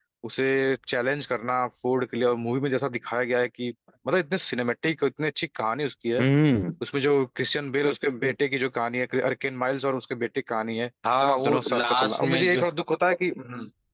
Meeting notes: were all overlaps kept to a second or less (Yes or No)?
No